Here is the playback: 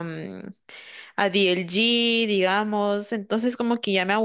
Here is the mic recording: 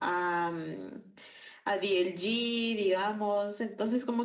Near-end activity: none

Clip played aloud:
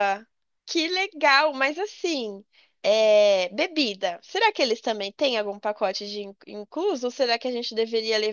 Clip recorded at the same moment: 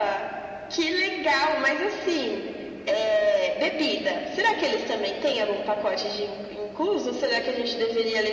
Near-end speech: none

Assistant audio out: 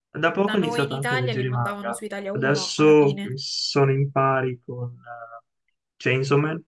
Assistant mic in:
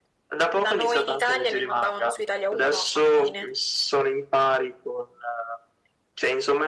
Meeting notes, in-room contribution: none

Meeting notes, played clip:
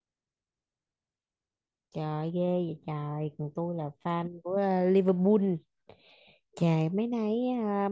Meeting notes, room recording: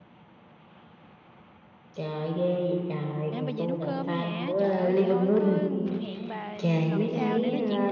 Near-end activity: present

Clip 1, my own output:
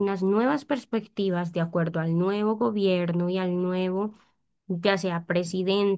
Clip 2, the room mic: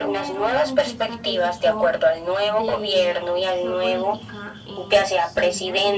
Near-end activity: present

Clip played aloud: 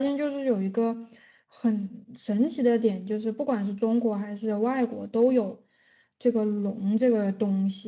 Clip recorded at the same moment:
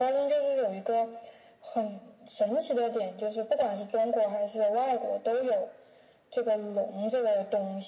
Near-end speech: none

